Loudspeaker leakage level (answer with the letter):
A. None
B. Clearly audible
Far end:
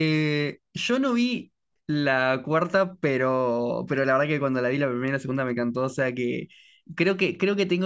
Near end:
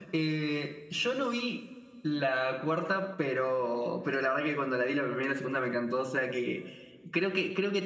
B